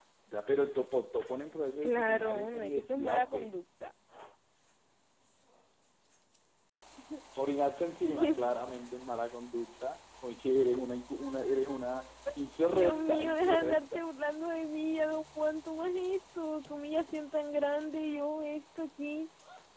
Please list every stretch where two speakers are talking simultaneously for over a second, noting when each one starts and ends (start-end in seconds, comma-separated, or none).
1.8-3.3, 12.7-14.0